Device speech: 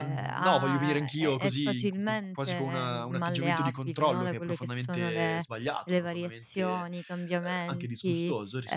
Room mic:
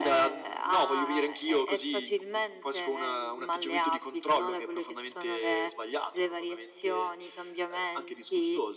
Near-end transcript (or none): none